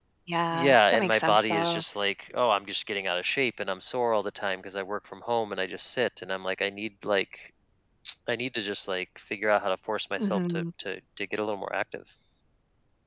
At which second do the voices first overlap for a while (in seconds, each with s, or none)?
0.5 s